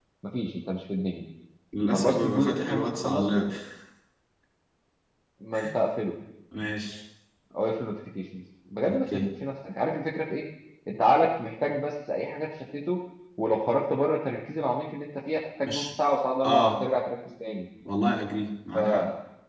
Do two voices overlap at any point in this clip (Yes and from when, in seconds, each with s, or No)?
Yes, from 1.9 s